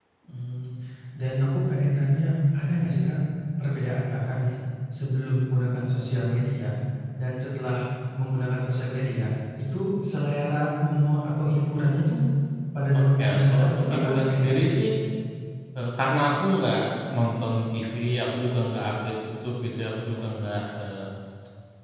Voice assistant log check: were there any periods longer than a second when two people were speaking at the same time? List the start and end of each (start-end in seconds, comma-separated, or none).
12.9-14.7